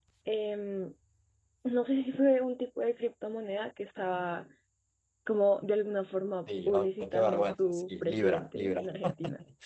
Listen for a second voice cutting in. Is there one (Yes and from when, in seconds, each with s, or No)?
Yes, from 6.5 s